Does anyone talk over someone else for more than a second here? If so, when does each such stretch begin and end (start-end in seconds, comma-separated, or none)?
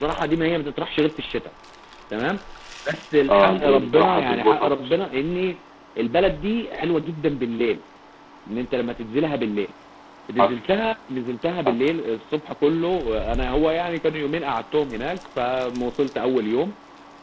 3.3-5.0